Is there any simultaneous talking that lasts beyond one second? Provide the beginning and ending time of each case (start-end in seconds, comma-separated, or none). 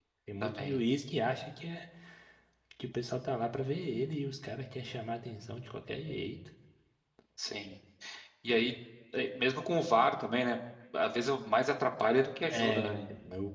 none